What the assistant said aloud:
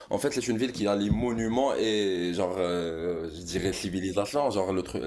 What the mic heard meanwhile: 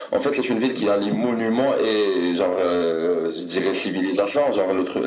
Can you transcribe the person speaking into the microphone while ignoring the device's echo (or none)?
none